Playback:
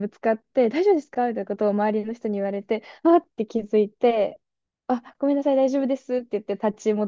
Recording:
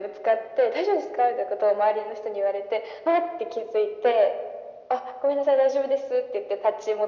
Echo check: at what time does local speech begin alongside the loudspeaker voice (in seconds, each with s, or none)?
none